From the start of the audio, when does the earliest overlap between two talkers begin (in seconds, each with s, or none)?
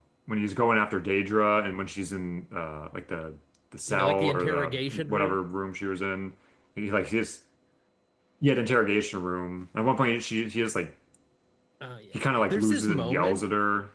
3.9 s